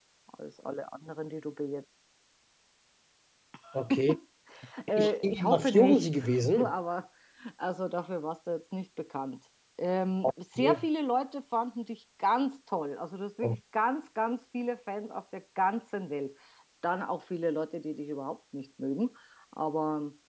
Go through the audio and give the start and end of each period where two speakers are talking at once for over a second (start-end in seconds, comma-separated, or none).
5.0-6.7